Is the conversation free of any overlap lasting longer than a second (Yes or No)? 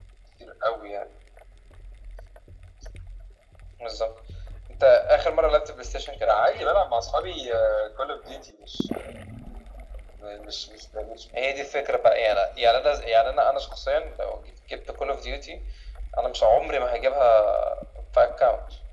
Yes